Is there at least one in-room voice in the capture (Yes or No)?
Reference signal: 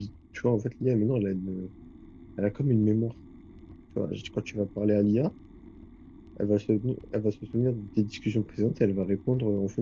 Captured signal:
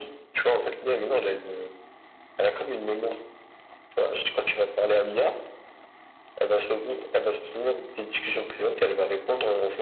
No